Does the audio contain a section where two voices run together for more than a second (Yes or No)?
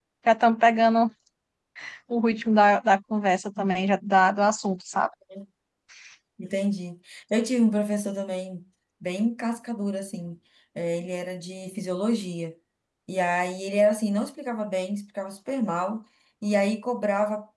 No